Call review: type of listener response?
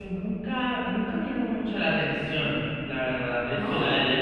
listening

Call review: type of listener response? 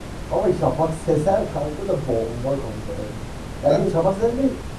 listening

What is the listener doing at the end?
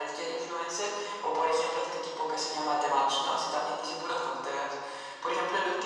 listening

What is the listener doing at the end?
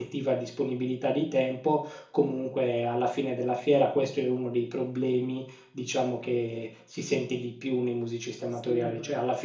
listening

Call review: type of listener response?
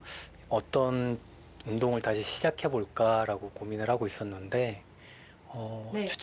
listening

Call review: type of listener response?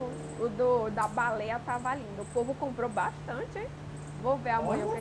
listening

